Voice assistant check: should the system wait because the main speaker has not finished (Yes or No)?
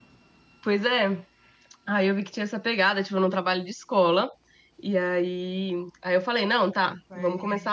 Yes